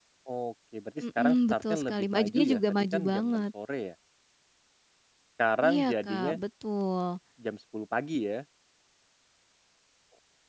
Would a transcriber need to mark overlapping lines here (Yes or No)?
Yes